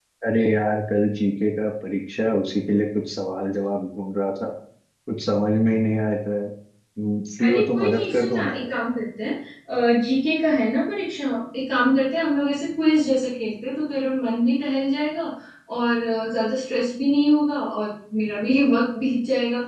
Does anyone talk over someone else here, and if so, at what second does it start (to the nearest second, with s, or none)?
7 s